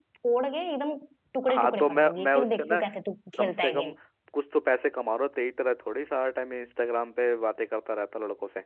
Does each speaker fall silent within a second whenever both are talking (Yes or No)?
No